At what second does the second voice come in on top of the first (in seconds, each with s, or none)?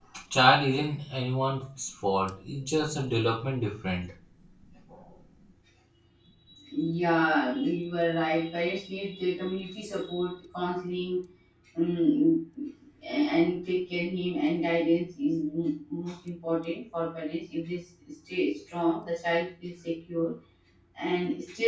none